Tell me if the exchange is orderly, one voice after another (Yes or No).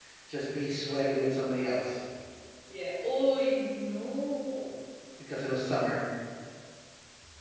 Yes